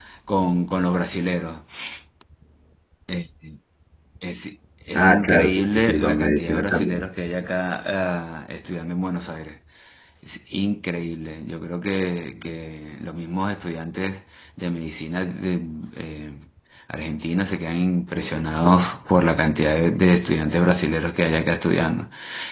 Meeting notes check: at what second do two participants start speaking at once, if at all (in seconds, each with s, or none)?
5.0 s